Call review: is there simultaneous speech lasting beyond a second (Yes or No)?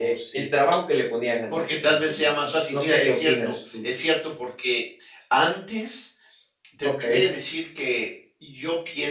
Yes